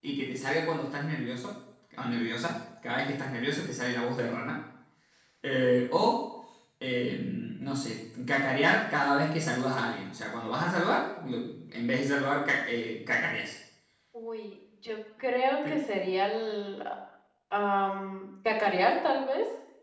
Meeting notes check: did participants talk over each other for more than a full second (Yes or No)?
No